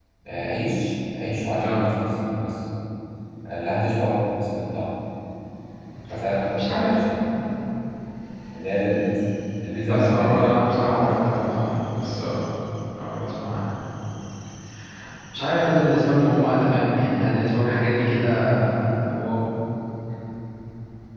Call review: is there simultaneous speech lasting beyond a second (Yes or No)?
Yes